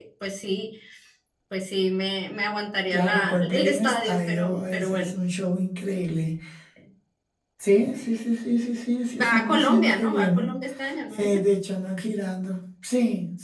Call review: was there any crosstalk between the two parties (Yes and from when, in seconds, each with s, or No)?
Yes, from 2.9 s